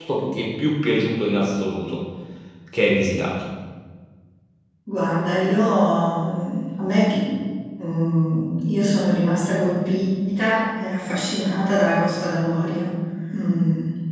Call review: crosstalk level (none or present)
none